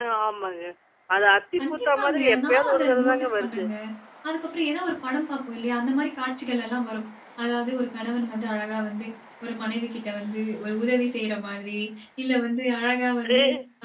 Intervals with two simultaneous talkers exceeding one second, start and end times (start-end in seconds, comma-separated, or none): 1.6-3.6